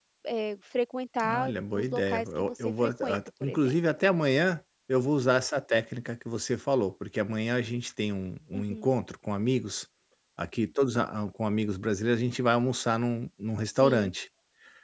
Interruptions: present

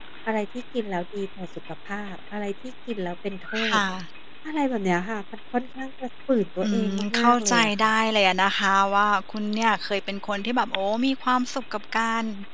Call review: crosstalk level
present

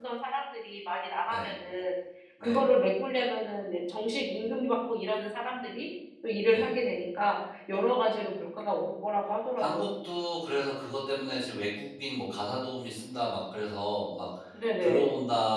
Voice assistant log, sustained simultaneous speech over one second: none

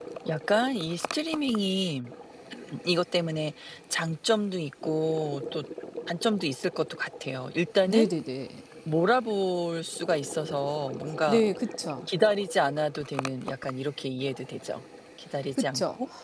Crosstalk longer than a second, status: none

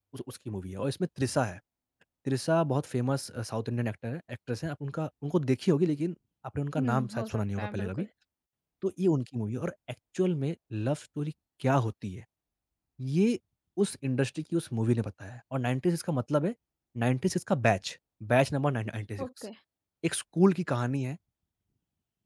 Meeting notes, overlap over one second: present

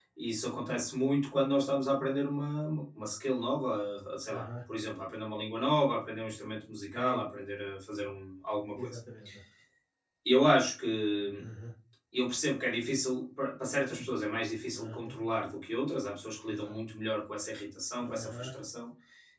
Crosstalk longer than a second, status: none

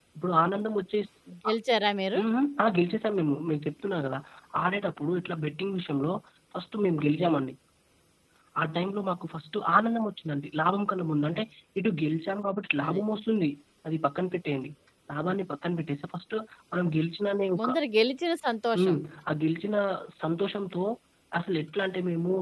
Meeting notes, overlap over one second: none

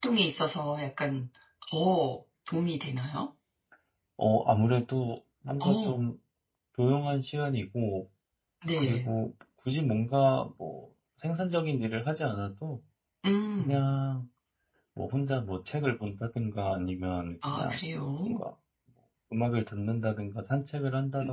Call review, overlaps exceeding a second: none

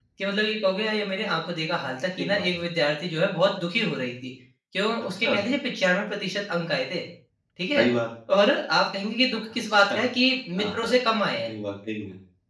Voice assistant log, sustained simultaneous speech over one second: none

